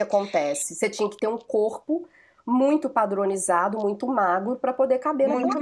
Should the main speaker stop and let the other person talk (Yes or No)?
Yes